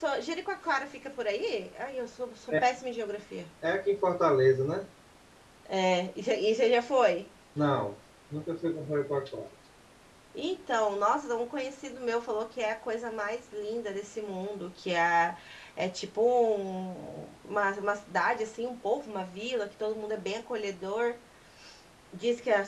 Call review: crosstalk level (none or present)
none